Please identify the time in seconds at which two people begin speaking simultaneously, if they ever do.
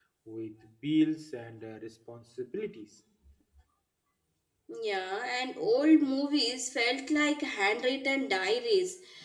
none

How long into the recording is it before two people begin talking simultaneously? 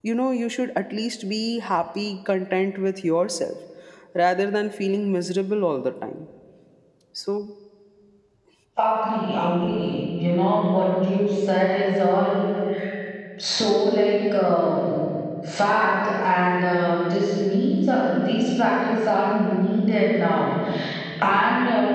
none

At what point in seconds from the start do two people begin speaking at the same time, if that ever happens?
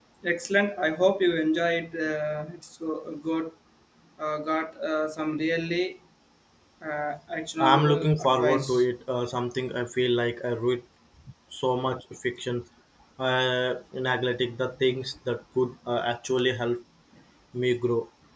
7.6 s

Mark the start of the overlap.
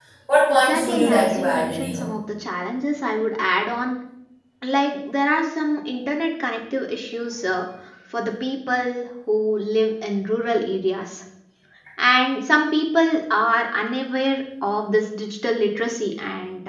0.5 s

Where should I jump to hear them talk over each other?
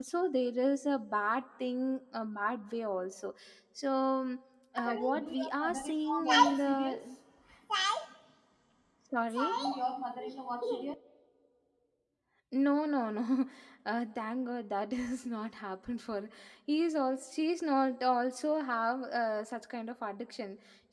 4.8 s

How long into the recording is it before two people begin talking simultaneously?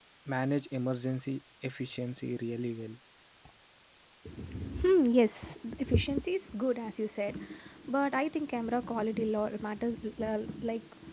none

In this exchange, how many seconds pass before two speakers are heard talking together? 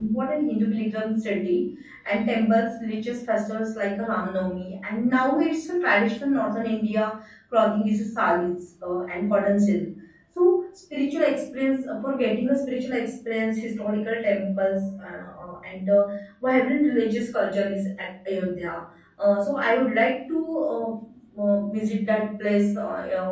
none

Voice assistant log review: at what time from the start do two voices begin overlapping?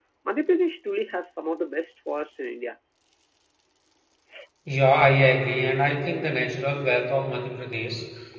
none

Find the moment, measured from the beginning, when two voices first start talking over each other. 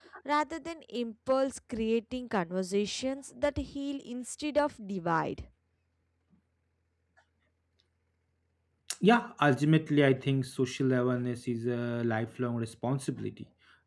none

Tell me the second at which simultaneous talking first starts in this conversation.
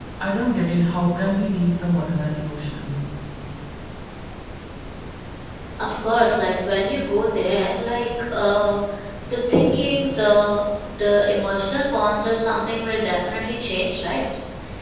none

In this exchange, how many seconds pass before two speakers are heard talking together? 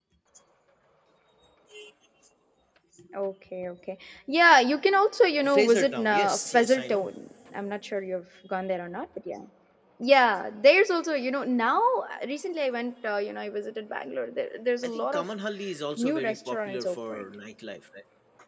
5.5 s

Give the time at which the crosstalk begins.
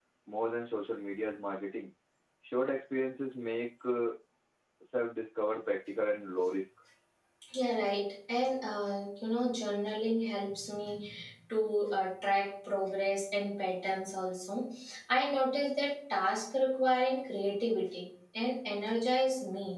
none

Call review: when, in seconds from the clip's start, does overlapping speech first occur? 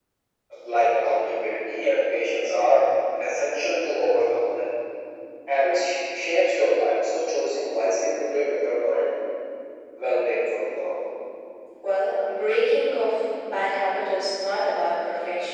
none

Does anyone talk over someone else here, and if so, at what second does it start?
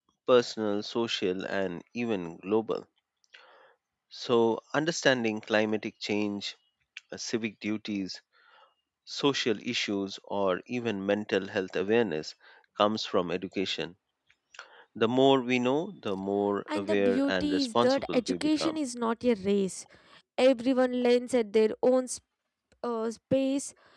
16.7 s

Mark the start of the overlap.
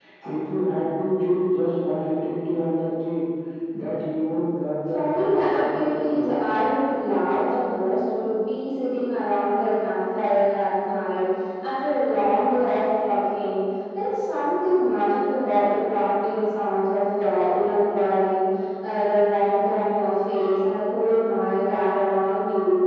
4.9 s

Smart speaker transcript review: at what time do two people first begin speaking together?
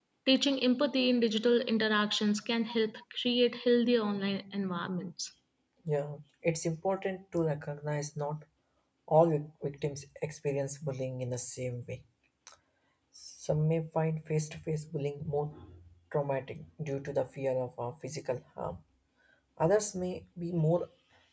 none

